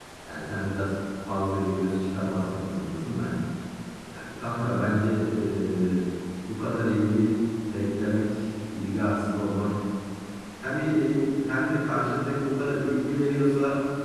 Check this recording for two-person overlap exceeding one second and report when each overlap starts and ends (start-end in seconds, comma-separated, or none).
none